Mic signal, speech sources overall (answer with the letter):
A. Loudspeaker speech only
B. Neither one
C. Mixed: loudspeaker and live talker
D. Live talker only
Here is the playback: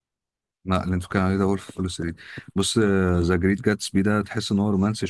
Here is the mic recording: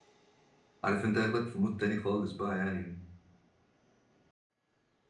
D